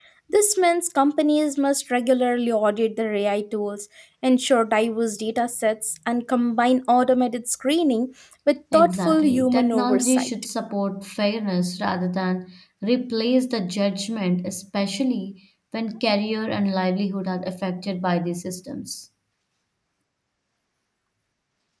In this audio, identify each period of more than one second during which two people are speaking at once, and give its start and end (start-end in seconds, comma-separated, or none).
8.7-10.3